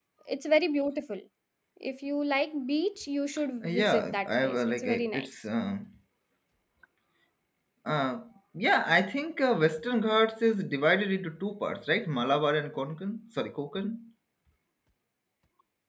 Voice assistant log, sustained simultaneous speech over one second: present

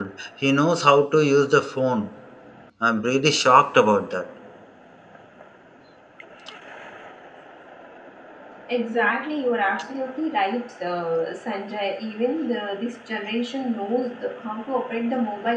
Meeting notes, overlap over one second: none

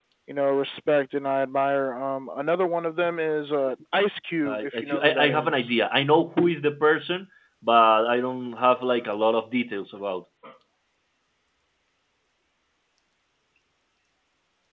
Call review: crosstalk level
present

